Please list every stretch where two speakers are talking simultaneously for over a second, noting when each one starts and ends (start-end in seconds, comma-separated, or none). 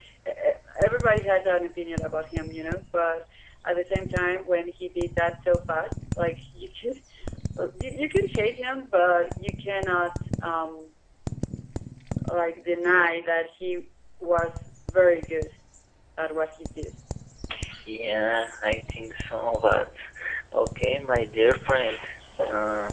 none